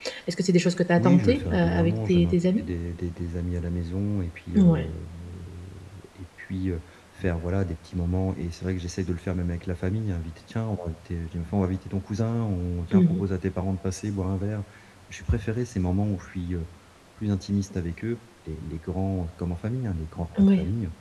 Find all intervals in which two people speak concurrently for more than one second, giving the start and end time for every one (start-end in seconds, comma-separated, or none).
1.0-2.6